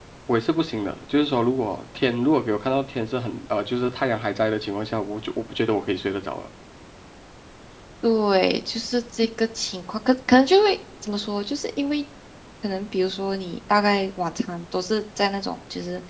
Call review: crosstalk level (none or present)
none